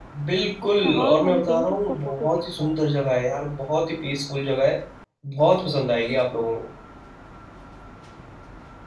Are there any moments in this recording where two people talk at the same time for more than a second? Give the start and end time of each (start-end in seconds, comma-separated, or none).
0.8-2.8